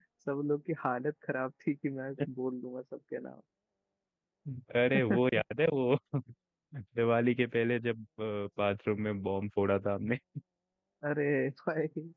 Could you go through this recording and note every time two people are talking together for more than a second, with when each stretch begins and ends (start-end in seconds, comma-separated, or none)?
none